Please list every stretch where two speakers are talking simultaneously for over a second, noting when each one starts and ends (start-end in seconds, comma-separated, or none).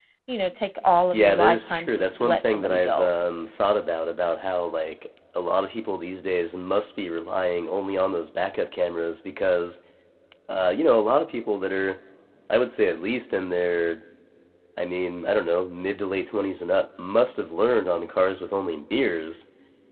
1.1-3.1